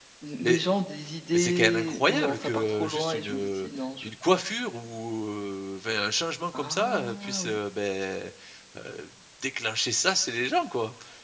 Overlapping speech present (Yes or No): Yes